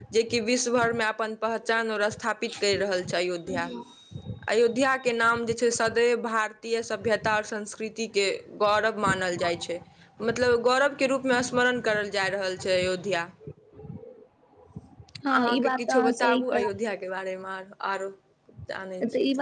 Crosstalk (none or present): present